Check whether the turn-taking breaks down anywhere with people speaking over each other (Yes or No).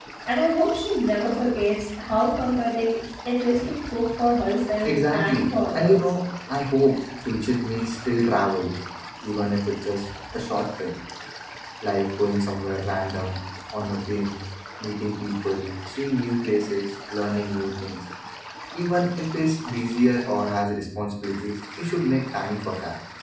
Yes